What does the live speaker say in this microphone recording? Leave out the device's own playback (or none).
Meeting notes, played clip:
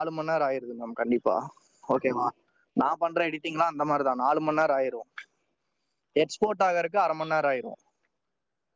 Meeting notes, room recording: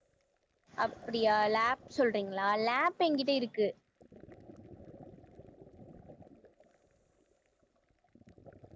அப் அப்படியா லேப் சொல்றீங்களா லேப் எங்கிட்ட இருக்கு